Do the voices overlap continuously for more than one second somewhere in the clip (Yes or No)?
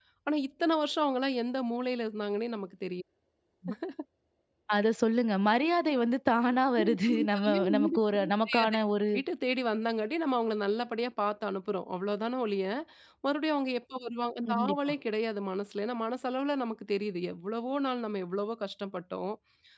Yes